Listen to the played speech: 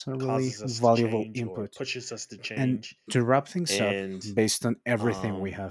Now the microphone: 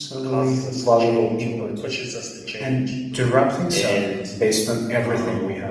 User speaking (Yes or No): No